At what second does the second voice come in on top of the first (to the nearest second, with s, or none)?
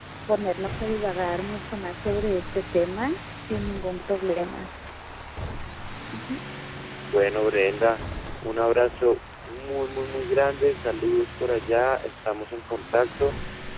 none